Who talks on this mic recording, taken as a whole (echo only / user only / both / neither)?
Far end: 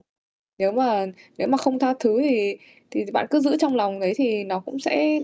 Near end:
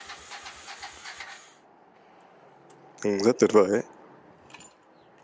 user only